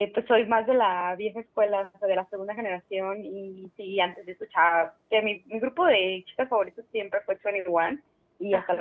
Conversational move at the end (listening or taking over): listening